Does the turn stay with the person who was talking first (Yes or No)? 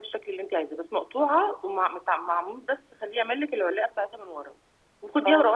Yes